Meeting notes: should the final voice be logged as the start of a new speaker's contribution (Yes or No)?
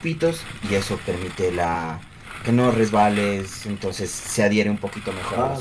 Yes